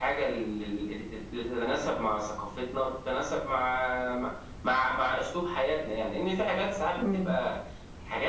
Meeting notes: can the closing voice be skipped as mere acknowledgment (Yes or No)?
Yes